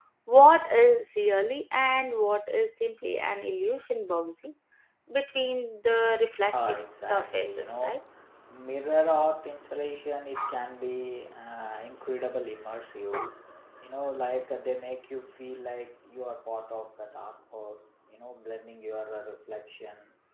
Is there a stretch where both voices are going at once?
Yes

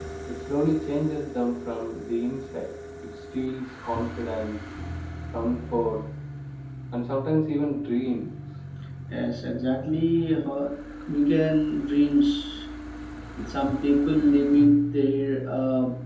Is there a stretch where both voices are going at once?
No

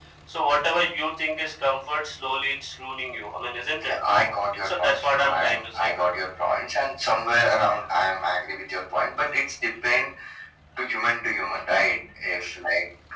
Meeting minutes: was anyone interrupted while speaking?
Yes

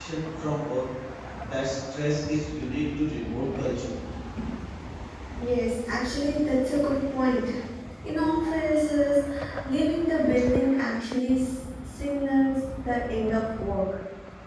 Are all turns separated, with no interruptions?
Yes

